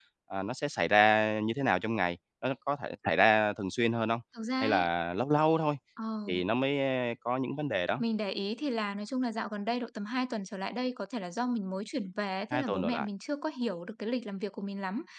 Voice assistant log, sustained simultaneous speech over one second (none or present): none